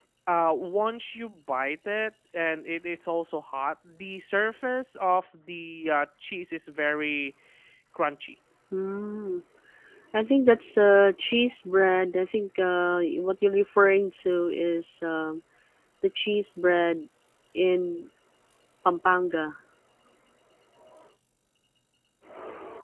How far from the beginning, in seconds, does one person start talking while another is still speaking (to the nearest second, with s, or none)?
none